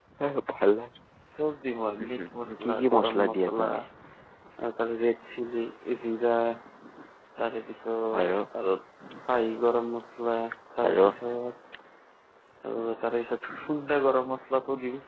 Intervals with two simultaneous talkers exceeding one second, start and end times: 2.0-3.6

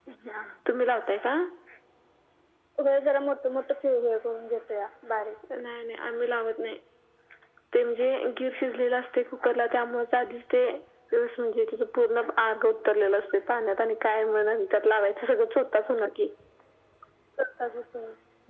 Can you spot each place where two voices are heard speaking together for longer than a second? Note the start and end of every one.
none

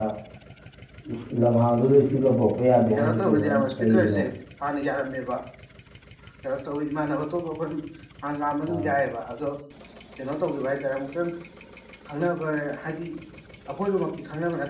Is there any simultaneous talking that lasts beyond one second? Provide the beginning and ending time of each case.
3.0-4.2

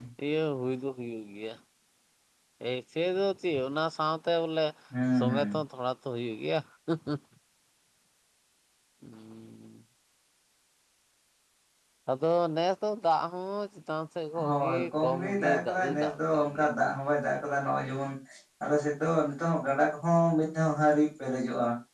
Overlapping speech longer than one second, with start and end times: 14.4-16.7

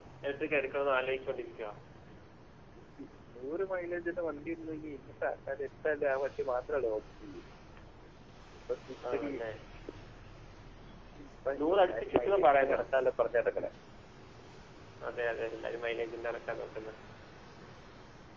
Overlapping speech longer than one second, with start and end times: 11.6-12.8

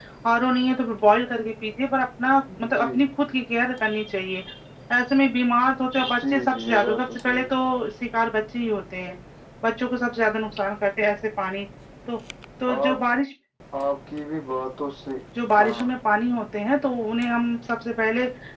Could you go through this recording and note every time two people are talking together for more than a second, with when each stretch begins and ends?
6.2-7.5

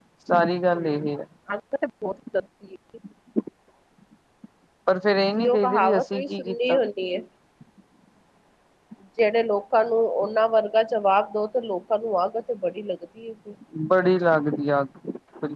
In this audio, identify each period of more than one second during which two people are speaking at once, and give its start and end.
5.4-6.8

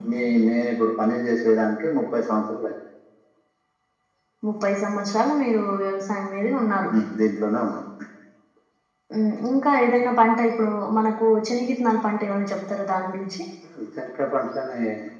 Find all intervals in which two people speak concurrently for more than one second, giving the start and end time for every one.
none

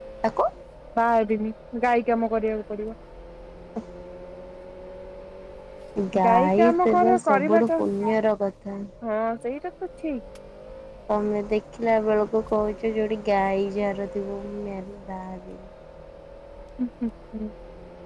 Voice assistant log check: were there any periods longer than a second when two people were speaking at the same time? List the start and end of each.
6.2-7.7

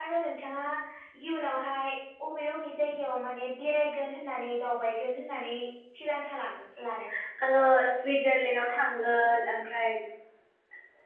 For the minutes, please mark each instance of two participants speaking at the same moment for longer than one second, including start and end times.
none

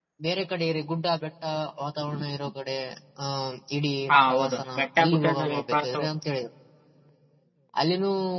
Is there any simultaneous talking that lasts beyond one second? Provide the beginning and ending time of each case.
4.3-6.1

